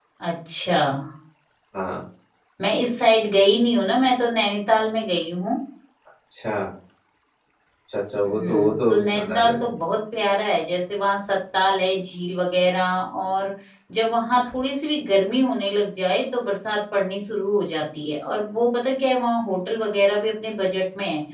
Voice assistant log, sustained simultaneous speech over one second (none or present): present